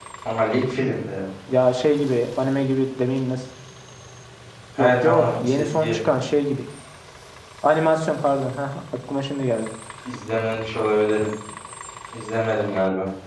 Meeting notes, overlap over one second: present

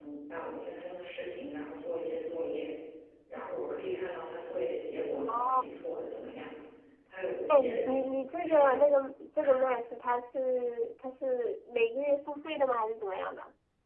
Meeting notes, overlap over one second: present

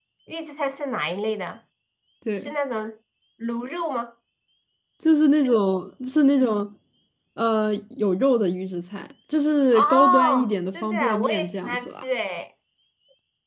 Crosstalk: present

